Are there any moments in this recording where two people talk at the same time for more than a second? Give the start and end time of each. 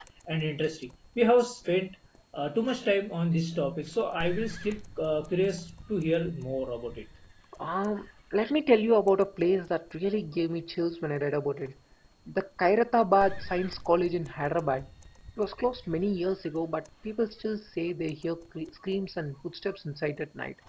none

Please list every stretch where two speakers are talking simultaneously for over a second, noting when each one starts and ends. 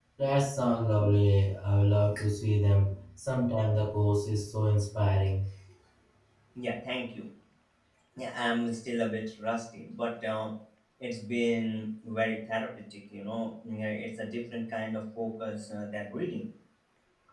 none

